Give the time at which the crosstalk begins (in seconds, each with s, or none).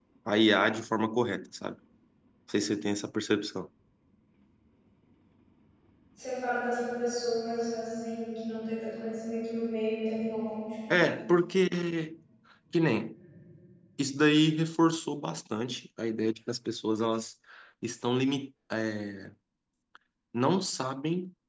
none